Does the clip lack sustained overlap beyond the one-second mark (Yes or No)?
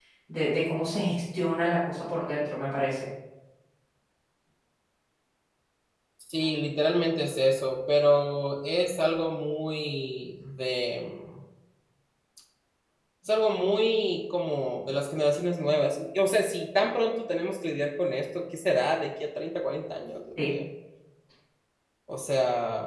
Yes